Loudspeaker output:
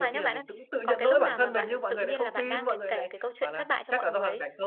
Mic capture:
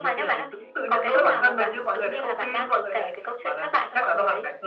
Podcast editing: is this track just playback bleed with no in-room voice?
Yes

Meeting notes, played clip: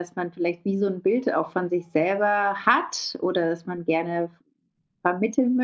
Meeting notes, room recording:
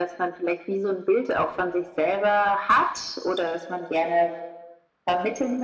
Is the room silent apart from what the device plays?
Yes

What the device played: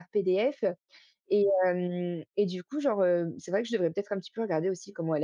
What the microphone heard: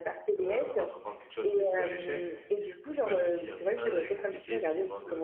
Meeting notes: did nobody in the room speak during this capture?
No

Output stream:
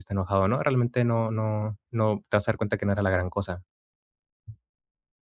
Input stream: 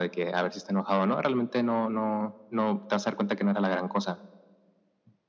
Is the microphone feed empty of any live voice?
Yes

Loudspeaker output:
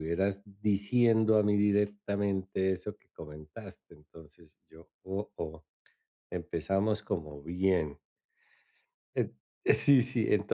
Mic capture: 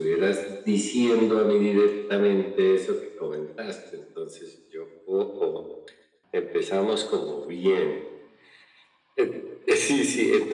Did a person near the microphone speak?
No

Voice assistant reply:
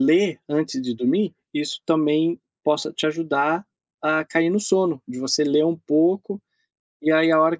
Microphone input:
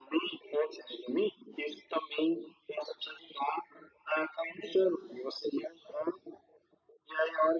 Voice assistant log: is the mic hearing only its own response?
Yes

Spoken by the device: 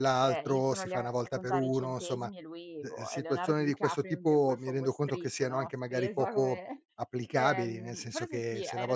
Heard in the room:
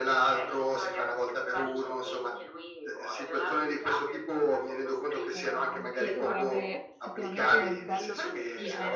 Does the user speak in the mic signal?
Yes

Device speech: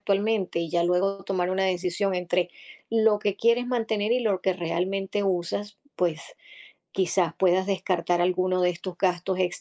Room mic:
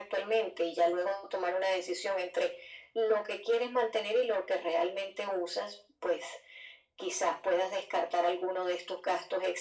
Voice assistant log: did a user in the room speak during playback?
No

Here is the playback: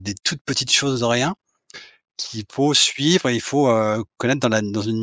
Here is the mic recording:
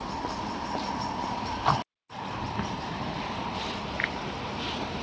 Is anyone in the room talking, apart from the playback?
No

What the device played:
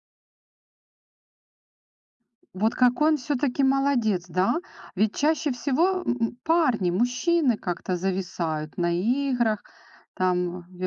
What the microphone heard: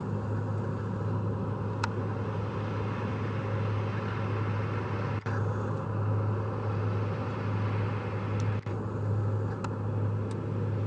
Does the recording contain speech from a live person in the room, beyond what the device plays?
No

